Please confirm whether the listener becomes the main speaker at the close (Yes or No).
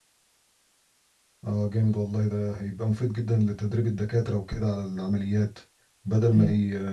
No